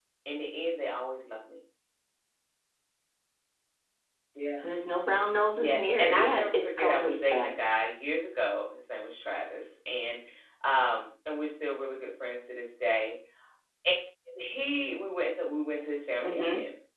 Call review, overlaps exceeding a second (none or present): present